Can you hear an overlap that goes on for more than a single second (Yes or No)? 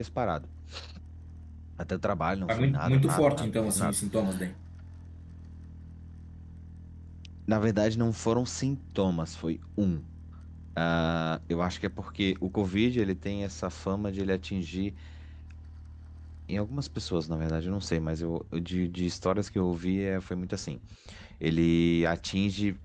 Yes